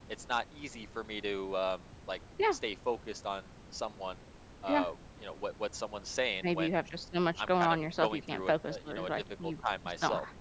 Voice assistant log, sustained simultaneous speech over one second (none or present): present